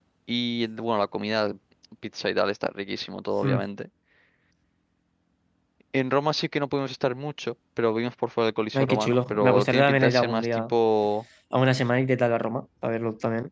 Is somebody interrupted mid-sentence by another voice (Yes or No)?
Yes